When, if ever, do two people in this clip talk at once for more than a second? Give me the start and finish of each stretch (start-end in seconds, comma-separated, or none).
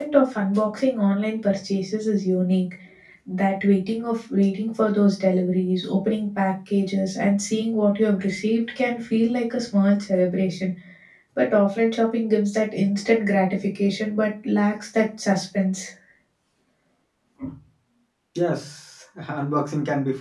none